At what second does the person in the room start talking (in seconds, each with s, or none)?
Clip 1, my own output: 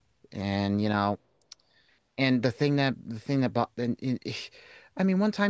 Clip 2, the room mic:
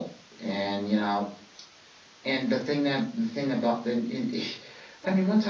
none